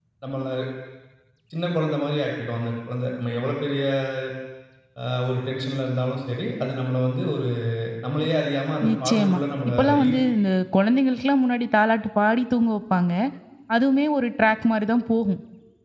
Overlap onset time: 8.9 s

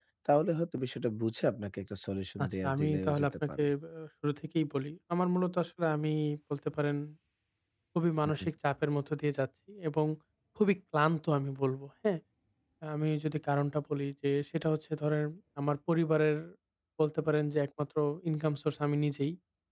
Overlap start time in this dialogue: 2.4 s

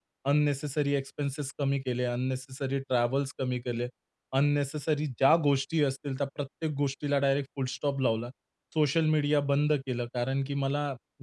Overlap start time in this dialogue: none

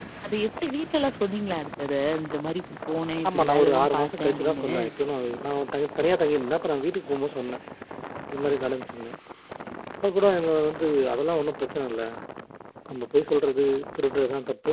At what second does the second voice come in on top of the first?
3.2 s

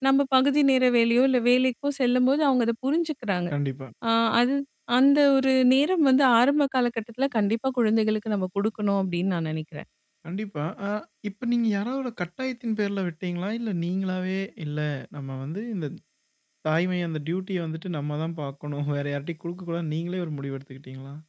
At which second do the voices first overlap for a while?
none

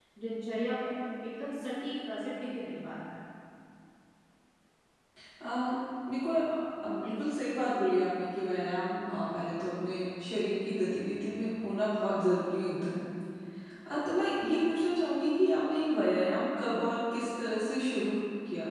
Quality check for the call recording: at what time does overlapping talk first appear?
none

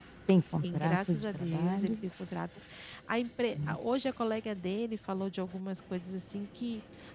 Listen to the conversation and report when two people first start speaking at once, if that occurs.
0.6 s

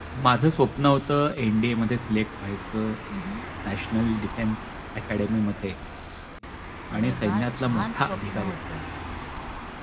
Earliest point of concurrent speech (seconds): 7.0 s

